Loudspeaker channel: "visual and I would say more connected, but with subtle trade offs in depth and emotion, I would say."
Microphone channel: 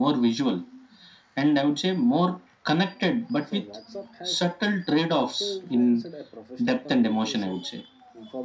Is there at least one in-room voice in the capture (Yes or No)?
Yes